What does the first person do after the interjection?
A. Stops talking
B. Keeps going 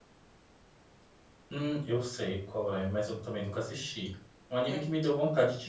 B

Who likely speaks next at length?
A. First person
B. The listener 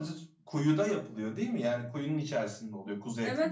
B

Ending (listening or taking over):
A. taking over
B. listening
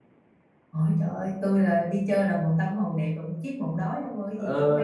A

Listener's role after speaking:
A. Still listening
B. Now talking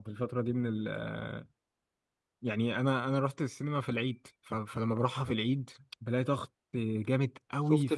B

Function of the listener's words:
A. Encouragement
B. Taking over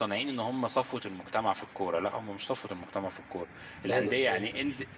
A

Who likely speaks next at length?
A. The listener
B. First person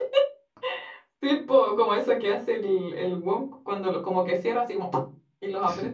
A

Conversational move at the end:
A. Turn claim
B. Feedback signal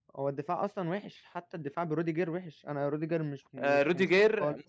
A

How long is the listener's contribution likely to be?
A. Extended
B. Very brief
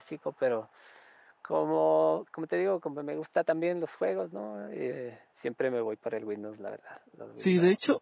A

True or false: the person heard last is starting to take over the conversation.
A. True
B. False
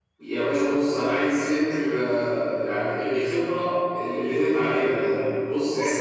B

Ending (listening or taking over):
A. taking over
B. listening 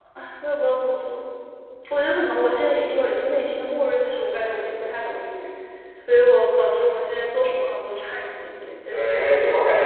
A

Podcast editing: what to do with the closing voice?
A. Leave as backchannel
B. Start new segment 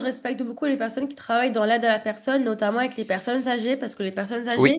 A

